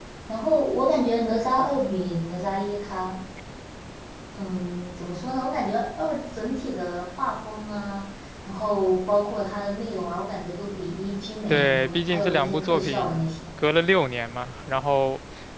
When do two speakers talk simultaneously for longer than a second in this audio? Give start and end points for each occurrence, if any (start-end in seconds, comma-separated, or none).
11.5-13.3